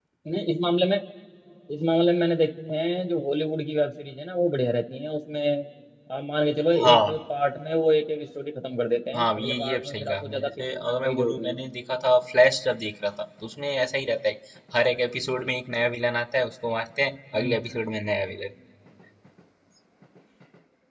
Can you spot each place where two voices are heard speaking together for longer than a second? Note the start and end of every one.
9.2-11.6

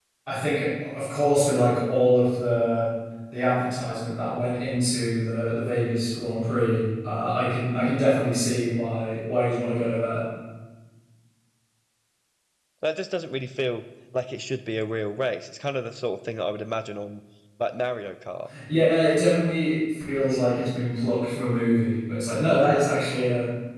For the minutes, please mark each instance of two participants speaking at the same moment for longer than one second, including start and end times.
none

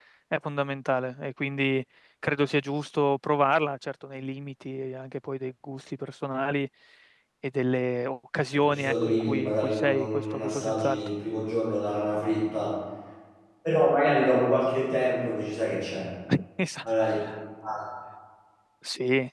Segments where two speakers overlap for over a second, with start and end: 8.5-11.0

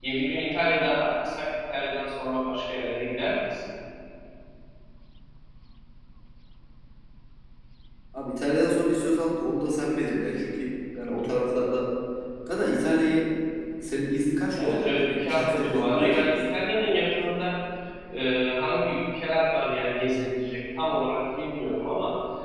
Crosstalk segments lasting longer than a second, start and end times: 14.6-16.6

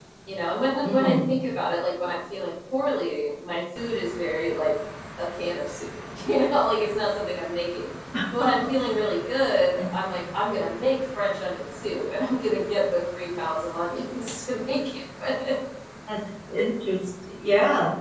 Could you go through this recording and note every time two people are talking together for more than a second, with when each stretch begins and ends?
none

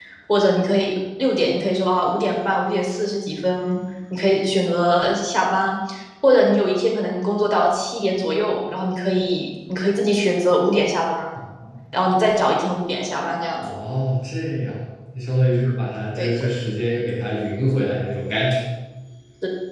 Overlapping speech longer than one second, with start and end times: none

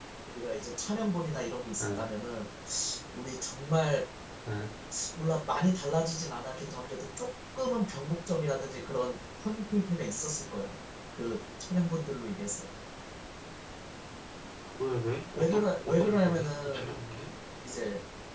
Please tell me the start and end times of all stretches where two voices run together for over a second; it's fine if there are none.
15.4-16.9

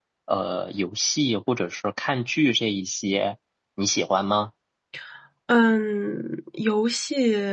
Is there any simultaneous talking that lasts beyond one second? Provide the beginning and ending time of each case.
none

